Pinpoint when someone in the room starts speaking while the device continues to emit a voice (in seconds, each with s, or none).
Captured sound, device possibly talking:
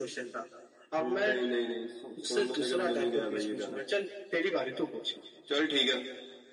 none